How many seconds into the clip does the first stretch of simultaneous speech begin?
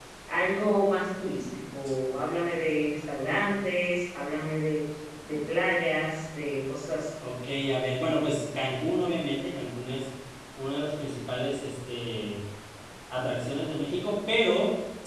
none

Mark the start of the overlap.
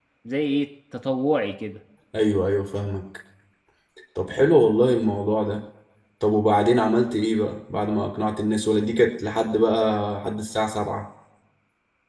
none

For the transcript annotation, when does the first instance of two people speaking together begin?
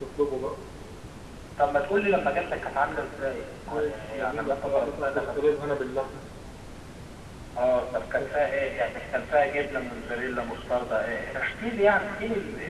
3.7 s

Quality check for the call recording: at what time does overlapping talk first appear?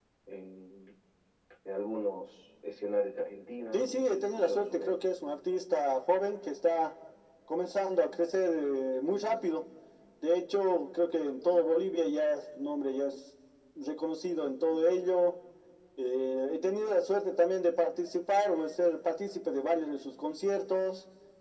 3.7 s

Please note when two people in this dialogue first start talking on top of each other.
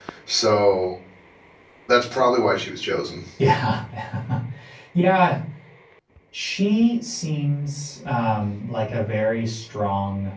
none

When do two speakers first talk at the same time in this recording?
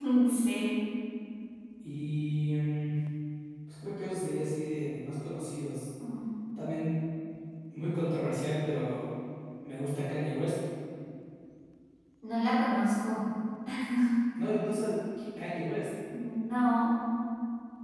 none

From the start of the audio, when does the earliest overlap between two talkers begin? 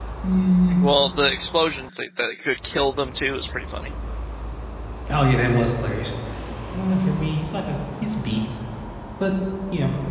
none

